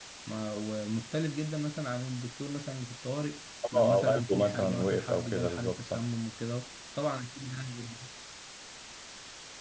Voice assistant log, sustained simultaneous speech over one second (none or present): present